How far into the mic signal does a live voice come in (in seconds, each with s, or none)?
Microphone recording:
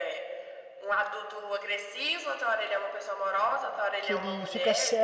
4.0 s